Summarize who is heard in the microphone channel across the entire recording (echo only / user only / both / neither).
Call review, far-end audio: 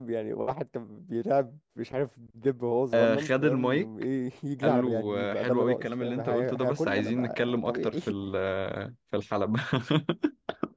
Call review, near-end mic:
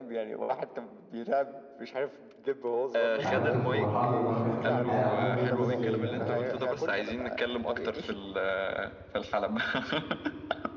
both